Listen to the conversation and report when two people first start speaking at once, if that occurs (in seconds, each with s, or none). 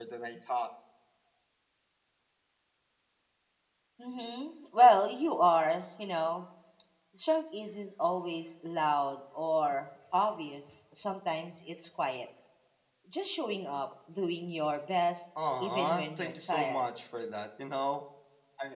15.3 s